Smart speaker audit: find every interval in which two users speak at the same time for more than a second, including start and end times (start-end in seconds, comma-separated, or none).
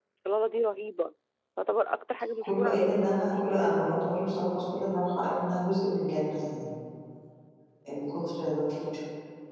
2.4-3.9